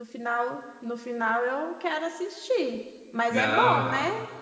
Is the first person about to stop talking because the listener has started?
Yes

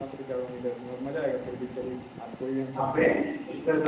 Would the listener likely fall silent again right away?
No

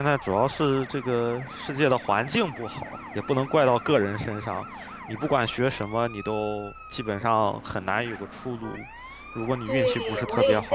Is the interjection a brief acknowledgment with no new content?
No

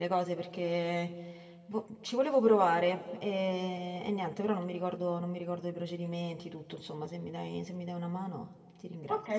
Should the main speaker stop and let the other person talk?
Yes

